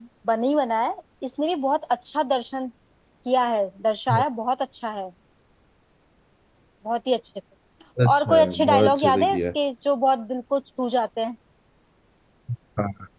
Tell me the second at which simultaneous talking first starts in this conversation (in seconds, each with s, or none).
8.1 s